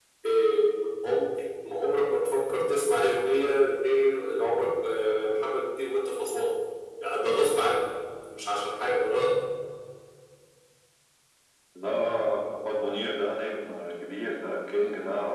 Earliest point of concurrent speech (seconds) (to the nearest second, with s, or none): none